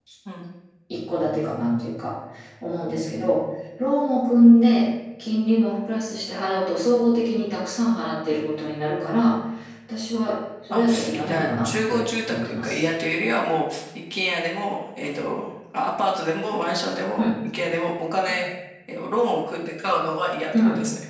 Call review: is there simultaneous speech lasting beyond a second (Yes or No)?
Yes